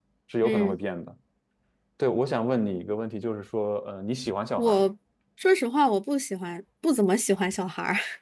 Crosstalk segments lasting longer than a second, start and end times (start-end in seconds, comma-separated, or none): none